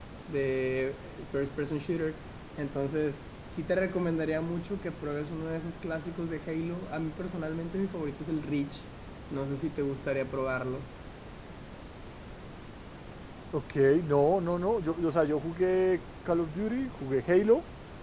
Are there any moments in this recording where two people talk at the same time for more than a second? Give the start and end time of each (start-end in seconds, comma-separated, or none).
none